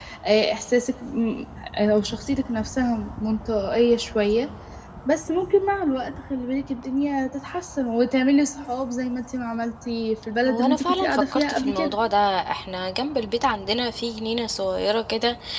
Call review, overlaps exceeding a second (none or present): present